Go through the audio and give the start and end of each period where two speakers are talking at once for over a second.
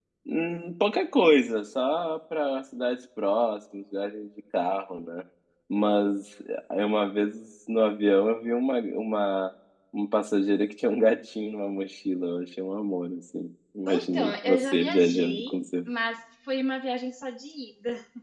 13.9-15.6

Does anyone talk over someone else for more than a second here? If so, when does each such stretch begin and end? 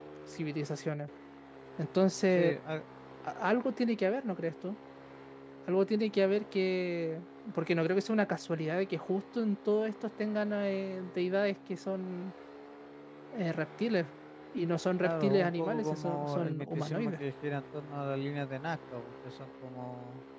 15.0-17.2

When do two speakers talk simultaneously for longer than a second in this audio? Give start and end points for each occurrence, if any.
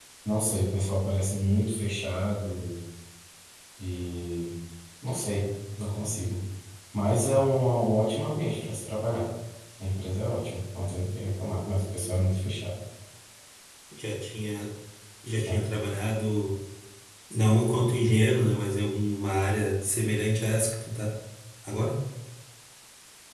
none

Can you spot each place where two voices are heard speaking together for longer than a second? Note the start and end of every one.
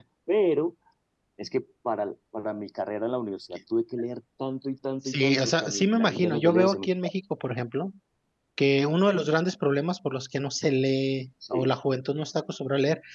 5.0-6.9

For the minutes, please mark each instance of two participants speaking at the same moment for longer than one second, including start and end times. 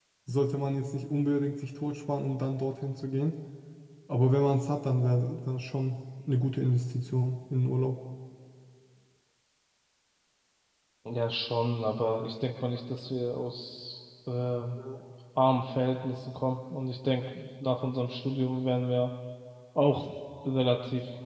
none

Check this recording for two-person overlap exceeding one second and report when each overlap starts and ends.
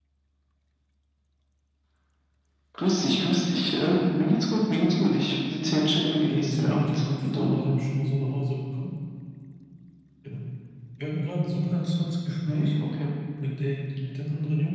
6.3-7.5

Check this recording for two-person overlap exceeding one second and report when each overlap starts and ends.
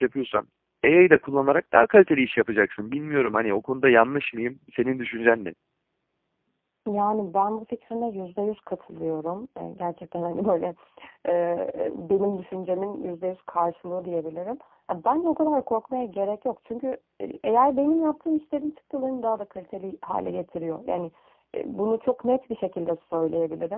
none

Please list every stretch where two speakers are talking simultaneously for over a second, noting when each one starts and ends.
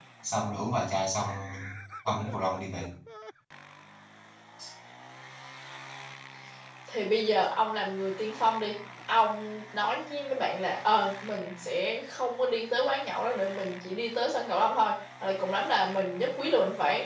none

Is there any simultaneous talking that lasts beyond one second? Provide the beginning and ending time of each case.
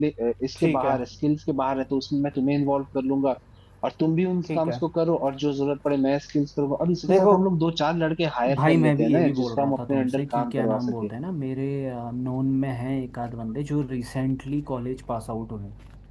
8.5-10.8

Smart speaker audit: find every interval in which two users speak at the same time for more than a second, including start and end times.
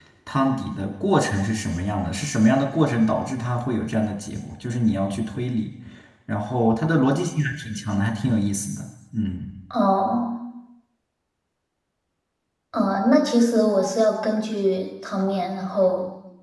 none

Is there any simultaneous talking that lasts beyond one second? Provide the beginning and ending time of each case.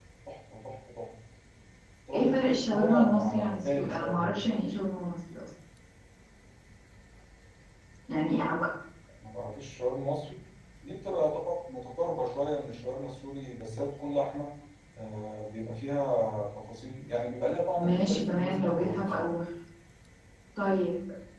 2.1-4.4, 17.8-19.3

